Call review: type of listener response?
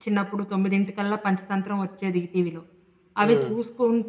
listening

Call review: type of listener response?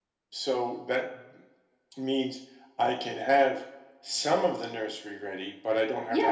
taking over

